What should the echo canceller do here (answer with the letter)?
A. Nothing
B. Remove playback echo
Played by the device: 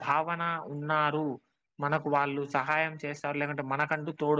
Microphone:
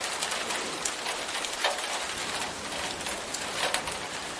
A